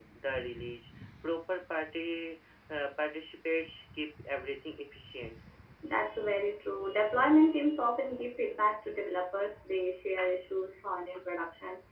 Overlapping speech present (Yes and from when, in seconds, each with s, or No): No